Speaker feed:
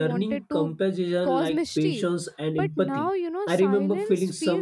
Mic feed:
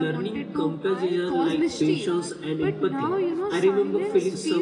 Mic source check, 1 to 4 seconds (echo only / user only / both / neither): both